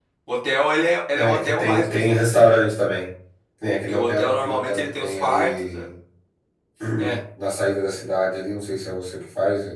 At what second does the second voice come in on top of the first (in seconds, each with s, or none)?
1.1 s